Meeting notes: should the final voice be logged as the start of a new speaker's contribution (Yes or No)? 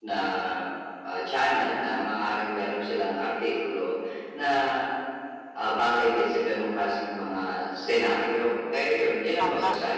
No